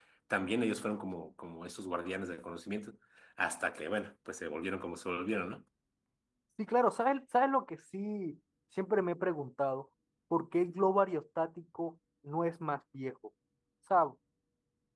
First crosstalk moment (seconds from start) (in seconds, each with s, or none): none